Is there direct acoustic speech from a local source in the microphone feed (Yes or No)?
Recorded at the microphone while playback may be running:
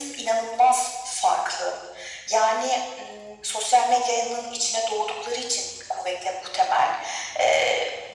No